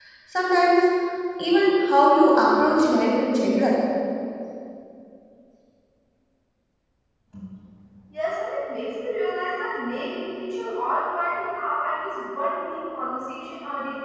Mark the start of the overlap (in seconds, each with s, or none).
none